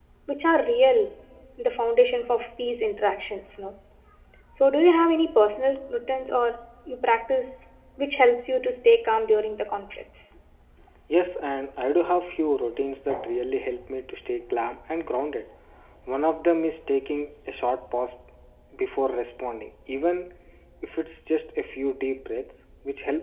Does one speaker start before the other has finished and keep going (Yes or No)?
No